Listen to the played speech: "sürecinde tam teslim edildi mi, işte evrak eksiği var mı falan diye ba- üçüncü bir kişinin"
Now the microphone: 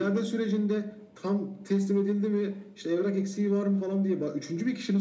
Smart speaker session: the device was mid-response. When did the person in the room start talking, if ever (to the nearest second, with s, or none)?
none